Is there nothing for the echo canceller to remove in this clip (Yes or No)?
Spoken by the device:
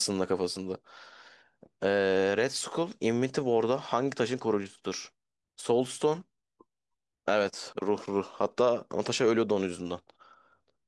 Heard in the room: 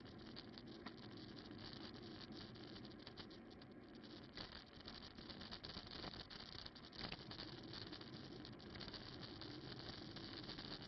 Yes